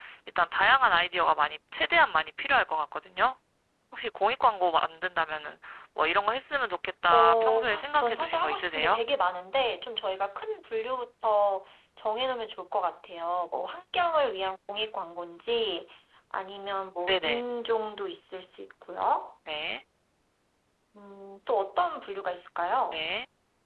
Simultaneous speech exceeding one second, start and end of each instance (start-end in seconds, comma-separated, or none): 7.1-9.0